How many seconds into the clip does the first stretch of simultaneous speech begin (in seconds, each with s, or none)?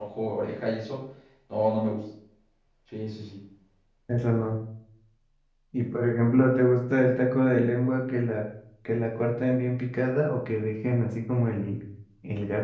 none